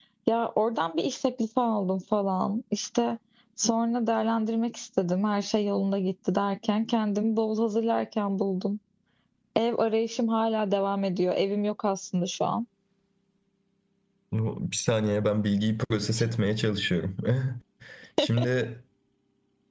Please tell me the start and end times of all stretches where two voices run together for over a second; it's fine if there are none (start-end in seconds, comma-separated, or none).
none